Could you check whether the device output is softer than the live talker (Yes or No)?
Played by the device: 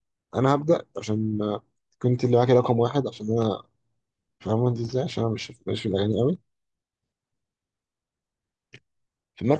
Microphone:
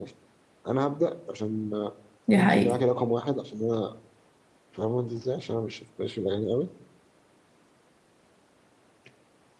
Yes